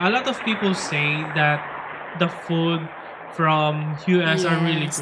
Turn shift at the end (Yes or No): Yes